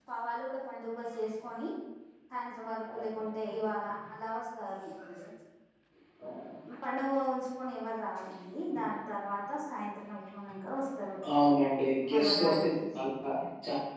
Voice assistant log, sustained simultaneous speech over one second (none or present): none